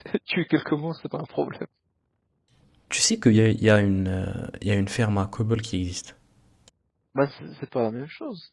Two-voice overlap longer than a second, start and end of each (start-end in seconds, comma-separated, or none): none